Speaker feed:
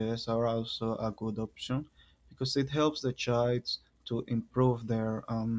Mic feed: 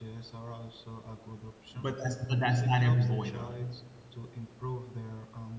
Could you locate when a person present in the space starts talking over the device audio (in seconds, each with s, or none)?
1.7 s